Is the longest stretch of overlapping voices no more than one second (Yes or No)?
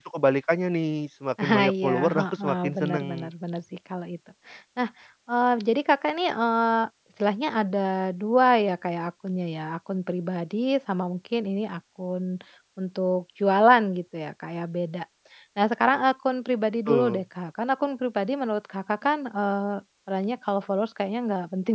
No